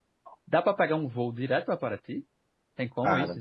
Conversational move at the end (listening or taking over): taking over